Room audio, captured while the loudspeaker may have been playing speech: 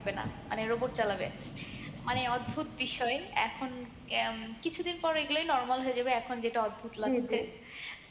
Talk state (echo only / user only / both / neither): both